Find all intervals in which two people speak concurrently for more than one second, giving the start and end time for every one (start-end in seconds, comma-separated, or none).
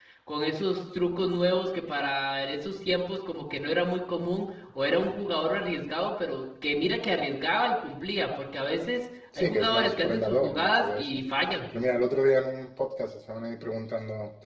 9.4-11.1